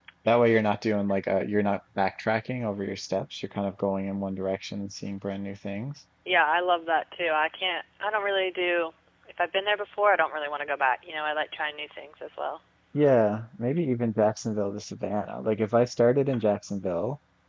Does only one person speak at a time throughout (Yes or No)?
Yes